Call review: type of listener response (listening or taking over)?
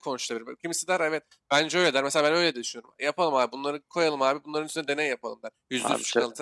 listening